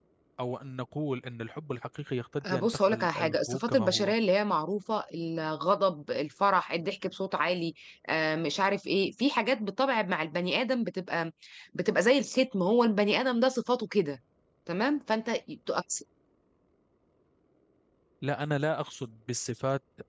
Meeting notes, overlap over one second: present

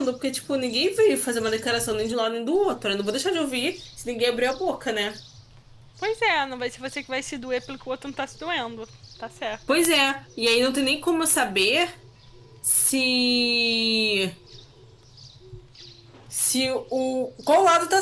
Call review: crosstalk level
none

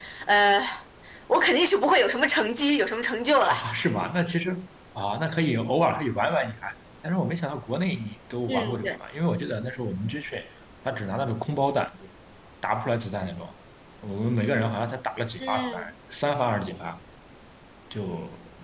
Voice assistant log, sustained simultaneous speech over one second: none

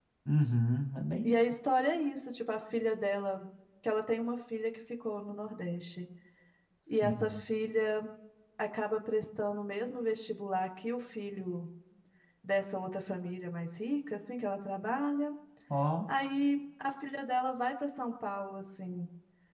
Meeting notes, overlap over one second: none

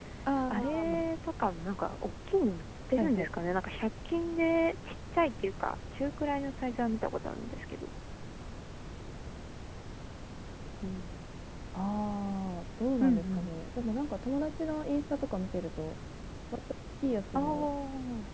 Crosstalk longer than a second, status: none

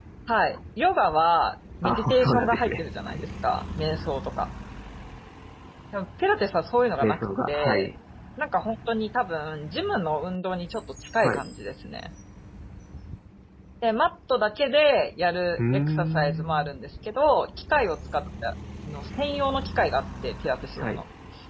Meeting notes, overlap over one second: present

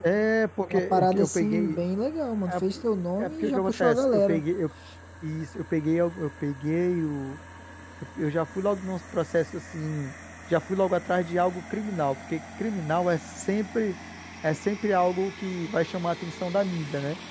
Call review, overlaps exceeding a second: present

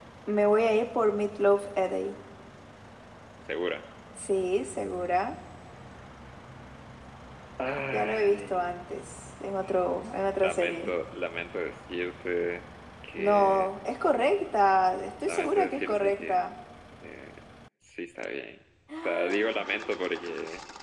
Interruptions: present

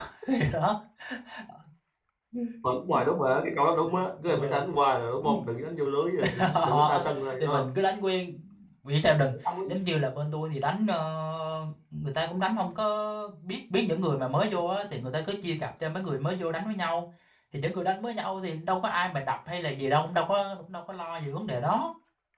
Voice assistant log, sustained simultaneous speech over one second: present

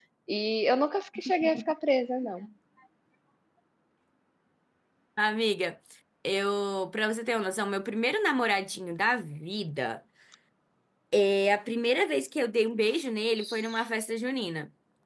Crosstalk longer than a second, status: none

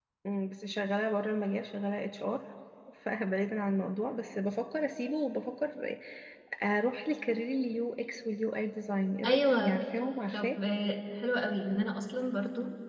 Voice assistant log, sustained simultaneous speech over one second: none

